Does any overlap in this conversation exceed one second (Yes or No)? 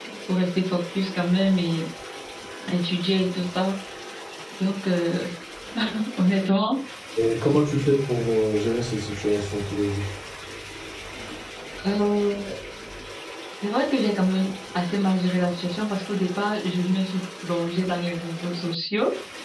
No